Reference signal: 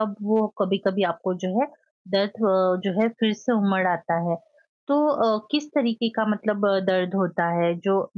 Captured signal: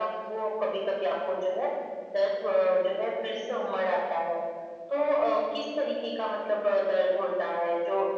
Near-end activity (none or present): none